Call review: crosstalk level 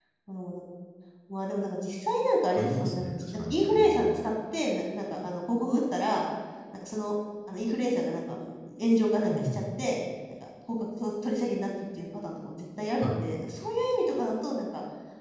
present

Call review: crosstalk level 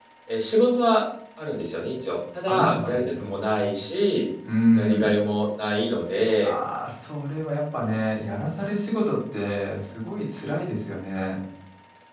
present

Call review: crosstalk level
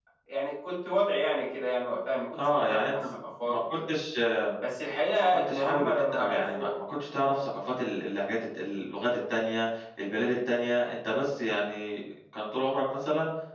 present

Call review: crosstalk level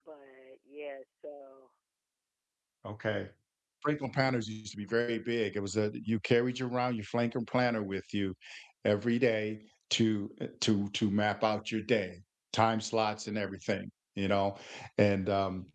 none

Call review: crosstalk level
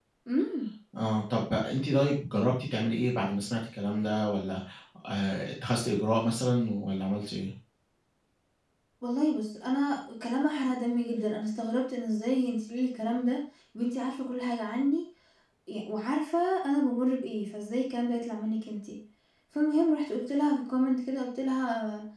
none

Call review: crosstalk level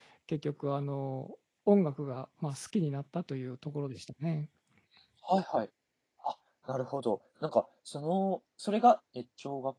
none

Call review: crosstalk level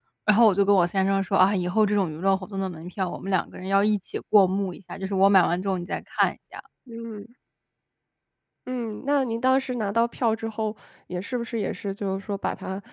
none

